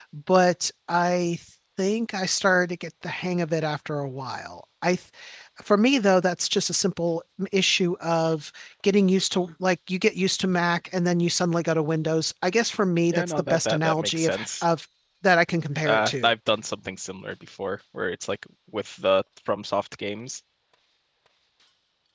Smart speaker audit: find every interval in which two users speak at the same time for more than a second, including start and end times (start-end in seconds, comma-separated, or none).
13.1-14.6